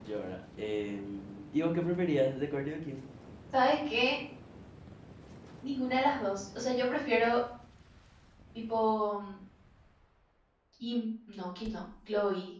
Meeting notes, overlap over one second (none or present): none